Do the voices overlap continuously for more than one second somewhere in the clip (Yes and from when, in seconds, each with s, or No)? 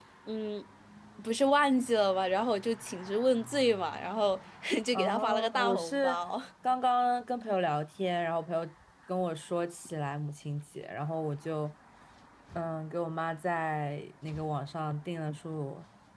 Yes, from 4.9 s